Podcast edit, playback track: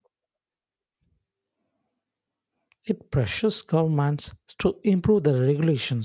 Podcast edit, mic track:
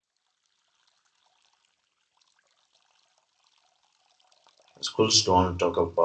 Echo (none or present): none